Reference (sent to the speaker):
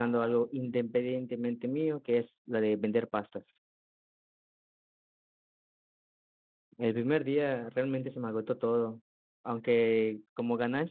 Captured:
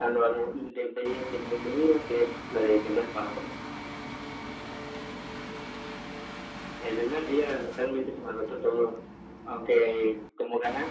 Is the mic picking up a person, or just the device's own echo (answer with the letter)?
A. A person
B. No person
B